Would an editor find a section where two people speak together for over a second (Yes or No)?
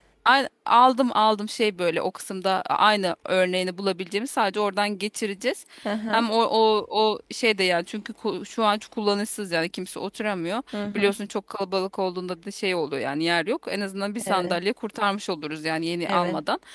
No